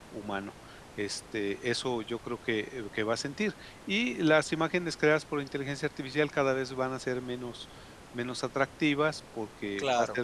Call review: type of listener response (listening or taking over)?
listening